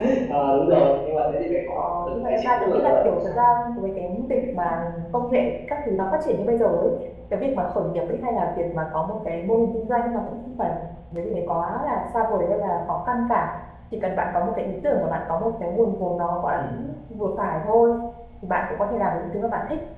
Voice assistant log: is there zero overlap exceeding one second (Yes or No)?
No